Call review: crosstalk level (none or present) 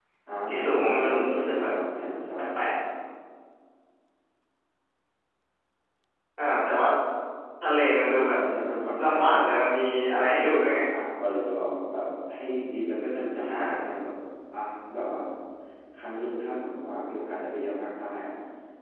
present